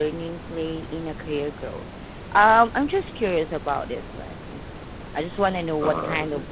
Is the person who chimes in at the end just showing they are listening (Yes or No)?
Yes